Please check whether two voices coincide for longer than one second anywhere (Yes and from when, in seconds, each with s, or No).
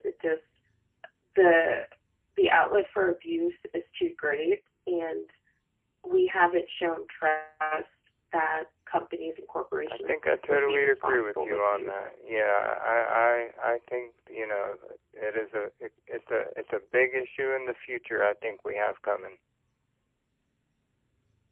Yes, from 9.8 s